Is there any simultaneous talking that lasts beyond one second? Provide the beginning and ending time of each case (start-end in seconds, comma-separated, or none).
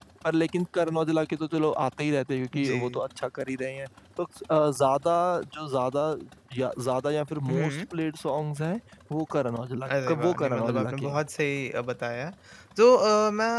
9.9-11.2